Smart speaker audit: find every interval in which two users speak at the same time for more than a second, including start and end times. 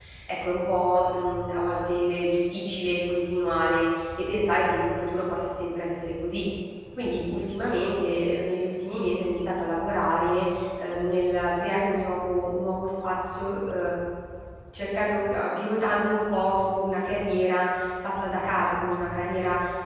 none

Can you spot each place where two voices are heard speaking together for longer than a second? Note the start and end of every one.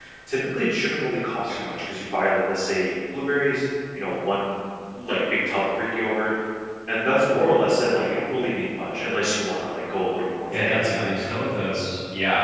10.5-11.8

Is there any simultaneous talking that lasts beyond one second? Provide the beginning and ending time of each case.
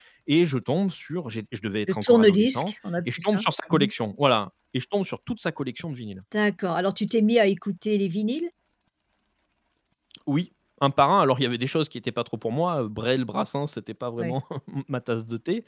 1.9-3.9

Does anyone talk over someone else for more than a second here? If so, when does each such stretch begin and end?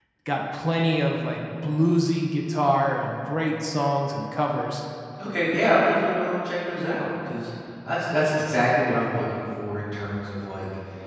none

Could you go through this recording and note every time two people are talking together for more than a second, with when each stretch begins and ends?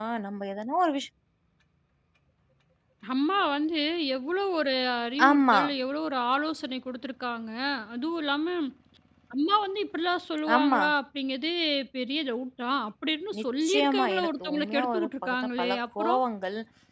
13.4-16.2

